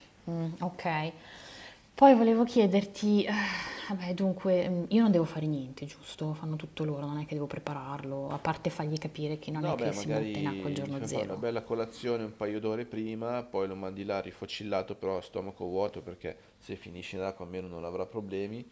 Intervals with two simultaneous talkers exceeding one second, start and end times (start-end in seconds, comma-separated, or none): 9.6-11.4